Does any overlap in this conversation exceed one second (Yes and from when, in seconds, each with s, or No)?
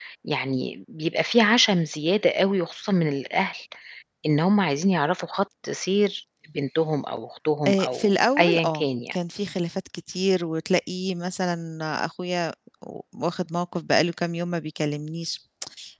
Yes, from 7.7 s